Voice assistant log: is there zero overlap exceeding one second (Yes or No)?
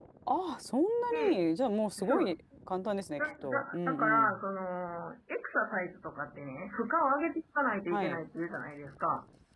No